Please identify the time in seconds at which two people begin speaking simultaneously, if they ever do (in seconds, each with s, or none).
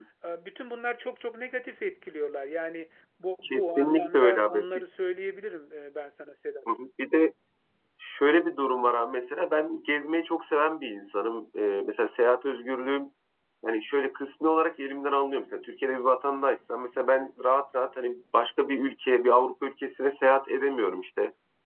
3.4 s